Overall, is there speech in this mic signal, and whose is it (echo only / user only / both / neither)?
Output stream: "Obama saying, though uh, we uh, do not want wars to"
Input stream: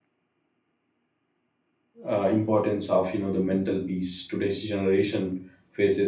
user only